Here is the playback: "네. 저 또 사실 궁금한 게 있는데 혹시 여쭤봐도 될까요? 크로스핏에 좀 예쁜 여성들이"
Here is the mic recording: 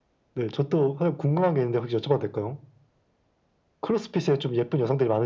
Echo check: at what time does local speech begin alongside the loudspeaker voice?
none

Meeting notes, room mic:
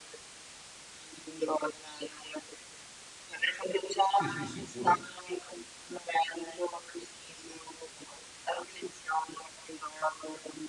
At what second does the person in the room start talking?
4.1 s

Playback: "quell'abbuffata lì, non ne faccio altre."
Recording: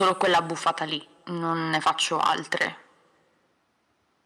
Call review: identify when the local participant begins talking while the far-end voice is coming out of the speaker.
none

